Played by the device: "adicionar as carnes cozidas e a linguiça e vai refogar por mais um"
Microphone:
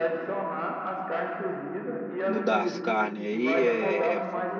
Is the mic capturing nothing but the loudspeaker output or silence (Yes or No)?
No